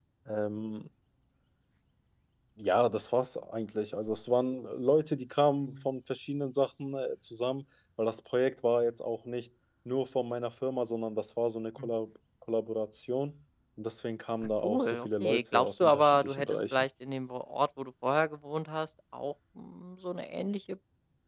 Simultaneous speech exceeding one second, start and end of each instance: 14.6-16.8

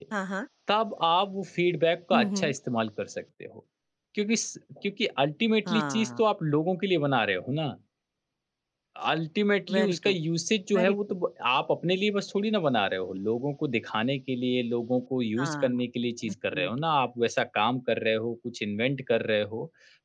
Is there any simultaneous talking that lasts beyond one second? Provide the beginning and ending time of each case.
none

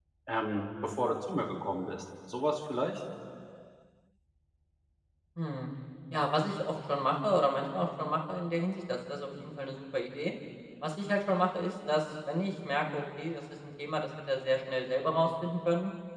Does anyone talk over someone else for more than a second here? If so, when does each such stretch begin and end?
none

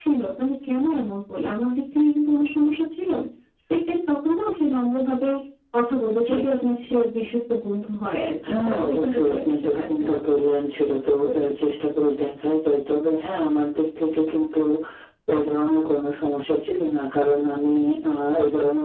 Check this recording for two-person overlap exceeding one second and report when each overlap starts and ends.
8.5-10.2

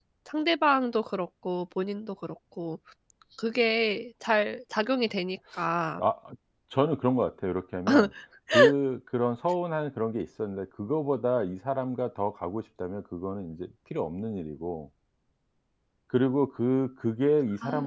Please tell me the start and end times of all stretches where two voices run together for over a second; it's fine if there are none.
none

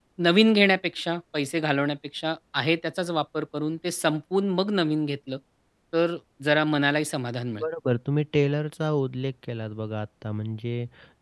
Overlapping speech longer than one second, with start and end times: none

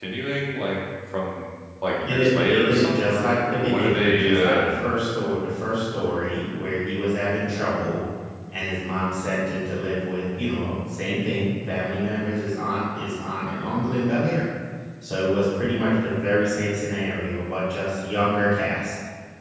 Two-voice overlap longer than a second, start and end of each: 2.0-4.6

